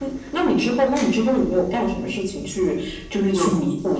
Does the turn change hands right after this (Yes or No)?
No